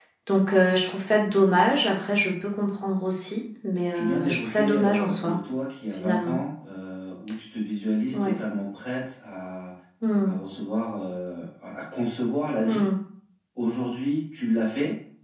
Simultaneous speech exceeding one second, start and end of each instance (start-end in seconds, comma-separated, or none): 3.9-5.4